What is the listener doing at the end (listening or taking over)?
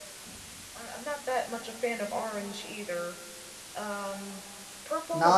taking over